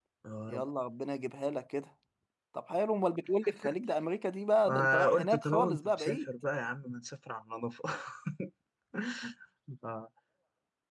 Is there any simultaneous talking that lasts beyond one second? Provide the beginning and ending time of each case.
4.7-6.3

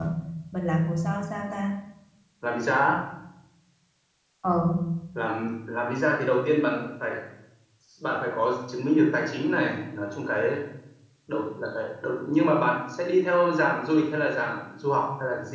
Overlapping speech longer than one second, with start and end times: none

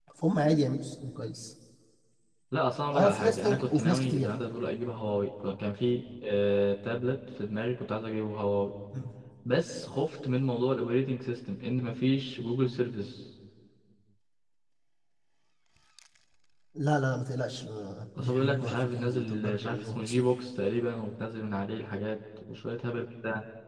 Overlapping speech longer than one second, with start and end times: 2.9-4.3, 18.2-20.3

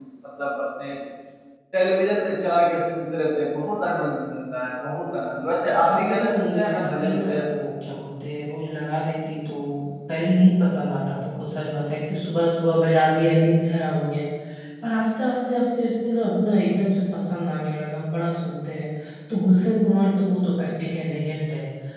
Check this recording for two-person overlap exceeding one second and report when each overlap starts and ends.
5.7-7.5

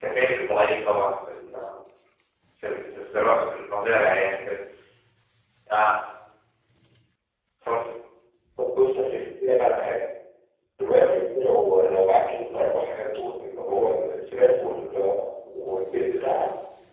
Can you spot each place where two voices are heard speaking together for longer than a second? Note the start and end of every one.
none

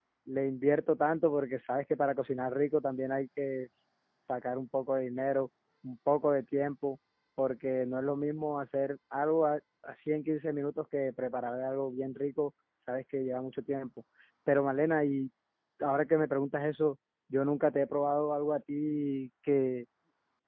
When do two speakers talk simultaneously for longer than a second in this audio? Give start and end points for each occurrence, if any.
none

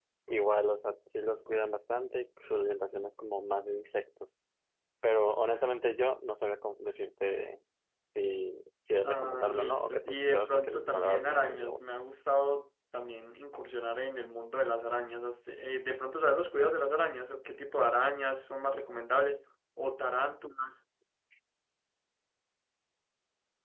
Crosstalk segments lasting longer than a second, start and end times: 9.0-11.8

